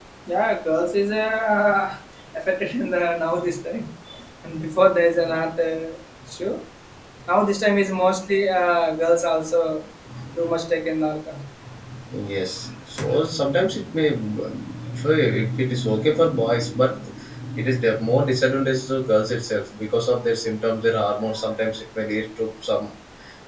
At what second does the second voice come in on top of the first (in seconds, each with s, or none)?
none